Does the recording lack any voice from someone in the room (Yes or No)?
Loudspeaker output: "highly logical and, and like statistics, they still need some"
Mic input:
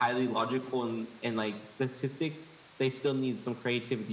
Yes